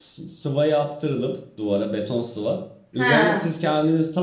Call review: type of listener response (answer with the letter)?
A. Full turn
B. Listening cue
B